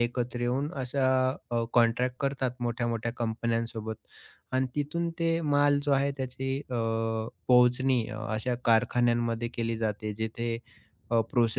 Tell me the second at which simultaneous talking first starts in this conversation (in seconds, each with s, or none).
none